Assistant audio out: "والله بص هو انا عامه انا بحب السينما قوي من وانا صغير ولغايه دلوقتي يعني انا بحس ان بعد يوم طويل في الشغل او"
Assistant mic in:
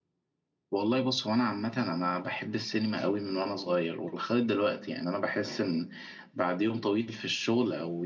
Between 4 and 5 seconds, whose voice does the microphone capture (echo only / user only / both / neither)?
echo only